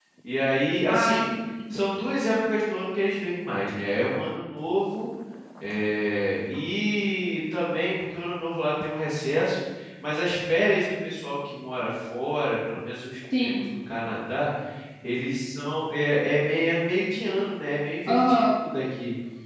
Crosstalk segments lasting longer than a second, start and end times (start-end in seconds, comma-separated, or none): none